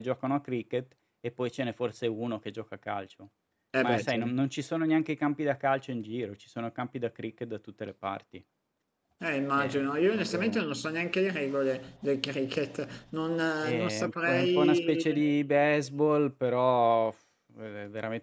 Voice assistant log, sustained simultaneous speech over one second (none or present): present